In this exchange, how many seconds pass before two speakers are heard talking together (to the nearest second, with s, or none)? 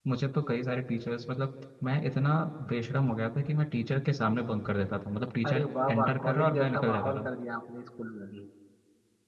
5 s